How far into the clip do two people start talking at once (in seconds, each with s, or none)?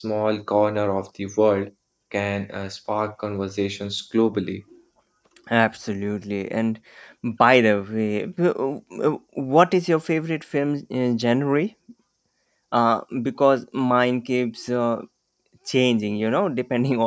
none